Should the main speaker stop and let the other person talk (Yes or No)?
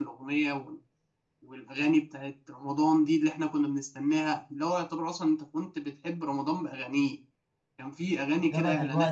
Yes